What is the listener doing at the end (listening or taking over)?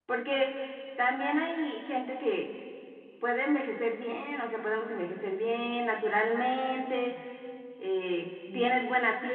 listening